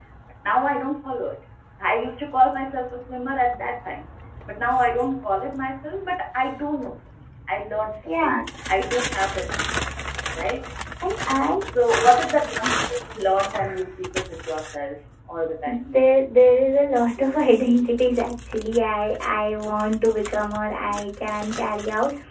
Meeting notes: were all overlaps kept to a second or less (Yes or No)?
Yes